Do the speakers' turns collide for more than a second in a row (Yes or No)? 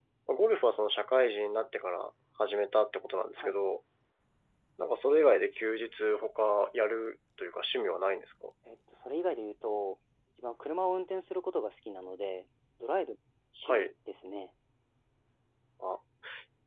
No